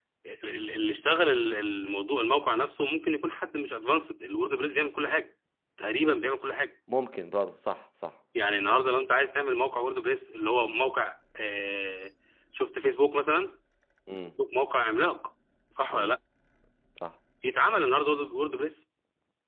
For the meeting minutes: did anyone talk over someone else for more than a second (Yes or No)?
No